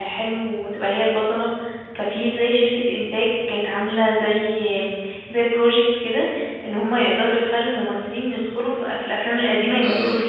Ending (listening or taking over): taking over